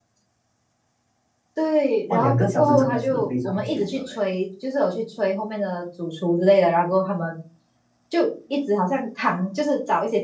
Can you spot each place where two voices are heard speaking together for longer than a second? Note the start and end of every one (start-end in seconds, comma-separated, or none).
2.1-4.2